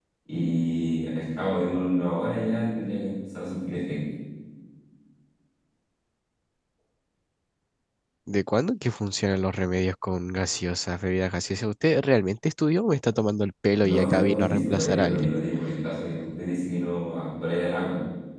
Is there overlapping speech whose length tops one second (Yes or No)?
Yes